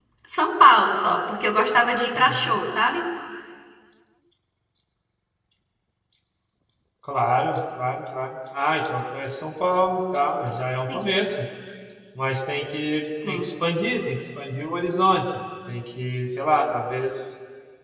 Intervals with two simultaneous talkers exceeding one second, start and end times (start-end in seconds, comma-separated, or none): none